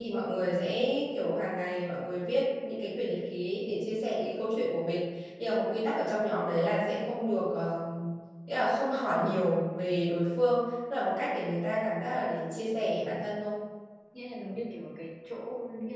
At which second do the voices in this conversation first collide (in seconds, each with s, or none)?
none